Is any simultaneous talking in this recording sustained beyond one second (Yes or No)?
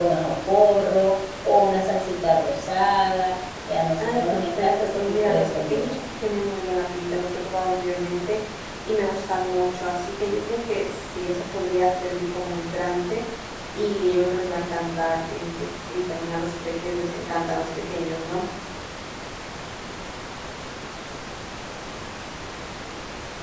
Yes